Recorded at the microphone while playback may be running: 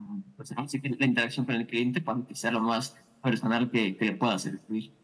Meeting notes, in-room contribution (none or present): none